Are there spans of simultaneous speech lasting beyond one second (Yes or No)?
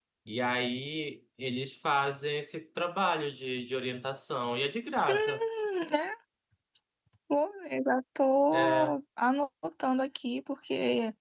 No